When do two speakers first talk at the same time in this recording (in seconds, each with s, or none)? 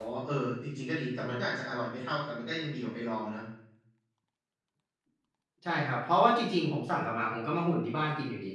none